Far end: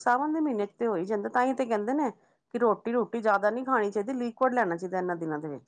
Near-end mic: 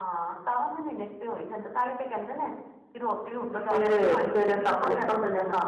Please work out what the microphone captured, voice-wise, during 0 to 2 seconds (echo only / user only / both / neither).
echo only